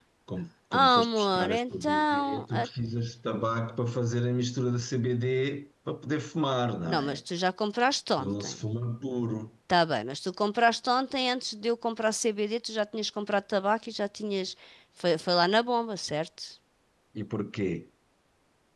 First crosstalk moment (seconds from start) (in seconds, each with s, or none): 0.7 s